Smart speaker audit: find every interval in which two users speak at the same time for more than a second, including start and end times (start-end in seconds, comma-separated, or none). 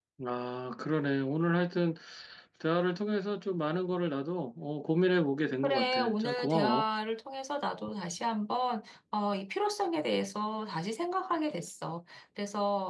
5.6-6.8